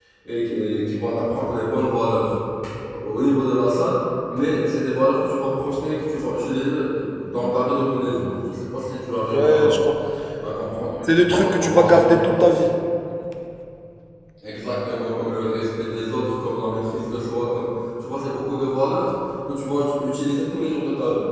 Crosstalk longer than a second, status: present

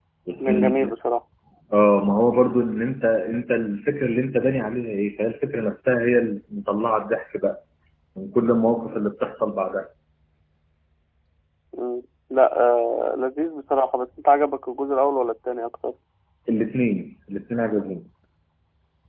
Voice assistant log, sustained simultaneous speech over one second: none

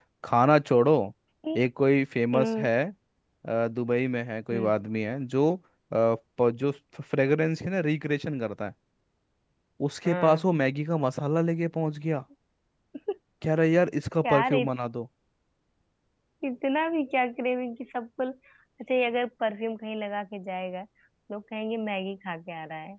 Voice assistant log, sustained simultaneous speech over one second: none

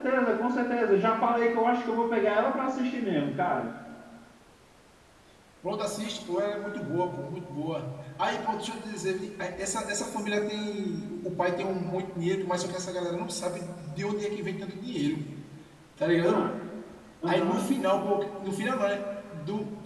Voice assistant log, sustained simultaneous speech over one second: none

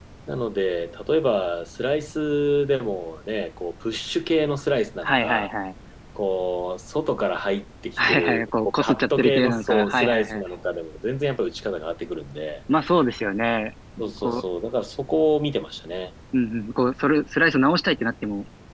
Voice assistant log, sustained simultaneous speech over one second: present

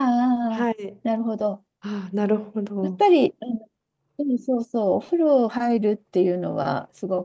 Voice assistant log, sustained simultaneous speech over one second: none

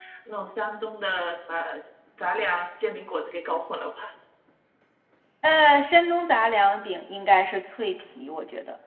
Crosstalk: none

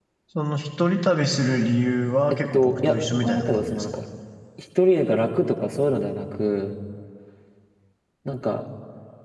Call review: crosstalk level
present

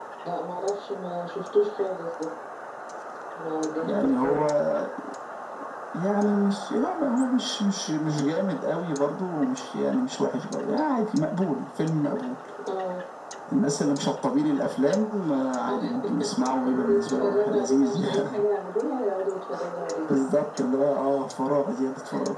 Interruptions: present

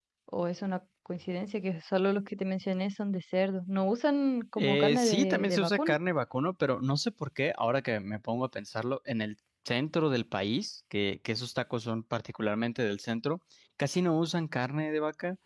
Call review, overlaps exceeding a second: present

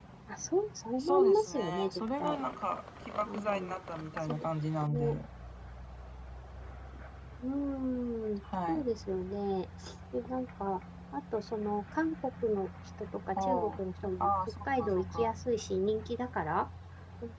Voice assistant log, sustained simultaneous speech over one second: present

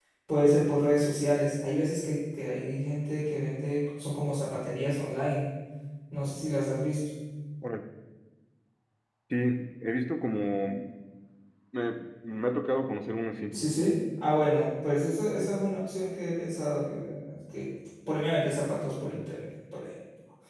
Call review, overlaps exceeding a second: none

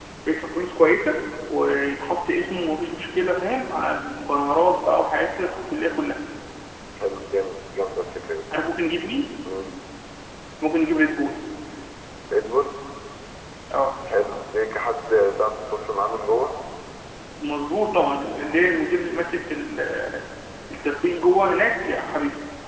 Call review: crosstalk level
none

